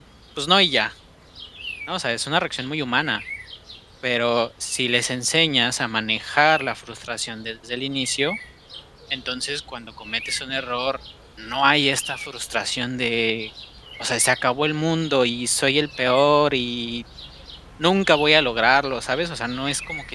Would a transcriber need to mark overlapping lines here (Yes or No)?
No